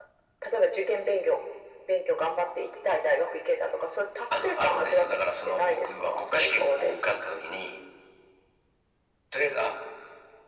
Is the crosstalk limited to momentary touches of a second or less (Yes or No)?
No